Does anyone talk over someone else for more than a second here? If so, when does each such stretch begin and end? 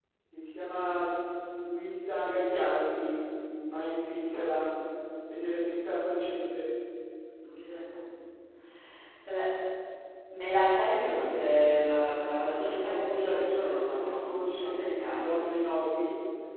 12.4-15.5

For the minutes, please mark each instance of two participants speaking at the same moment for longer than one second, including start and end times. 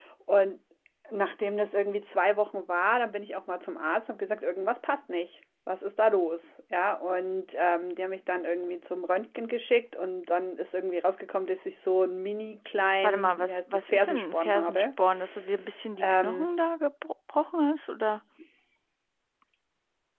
13.0-14.9

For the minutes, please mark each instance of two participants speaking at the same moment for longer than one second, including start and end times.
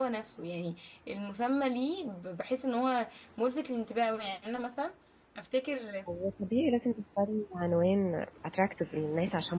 none

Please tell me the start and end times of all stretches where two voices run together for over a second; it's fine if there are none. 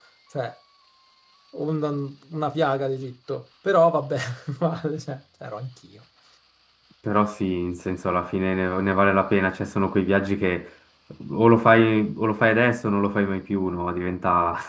none

